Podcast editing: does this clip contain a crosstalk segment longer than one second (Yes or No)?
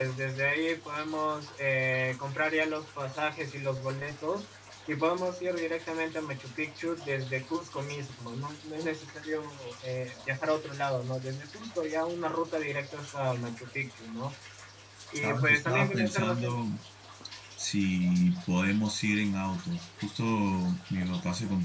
Yes